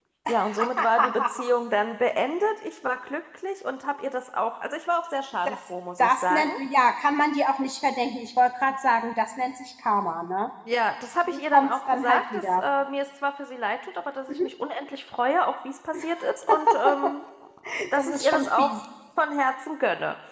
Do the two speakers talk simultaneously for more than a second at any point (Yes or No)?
Yes